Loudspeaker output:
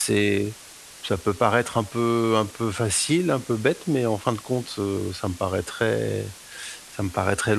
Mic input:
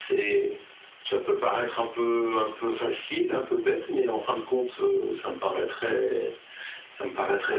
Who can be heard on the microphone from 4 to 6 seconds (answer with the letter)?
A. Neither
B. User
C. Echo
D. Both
C